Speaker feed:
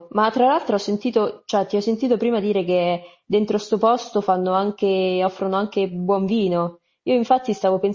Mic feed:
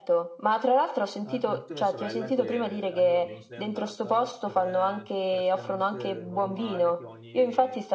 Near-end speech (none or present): present